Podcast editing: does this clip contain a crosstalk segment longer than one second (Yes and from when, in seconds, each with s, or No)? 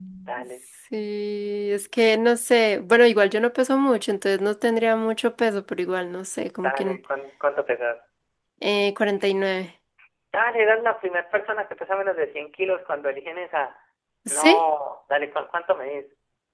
No